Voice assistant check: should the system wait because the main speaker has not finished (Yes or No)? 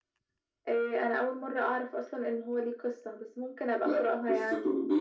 No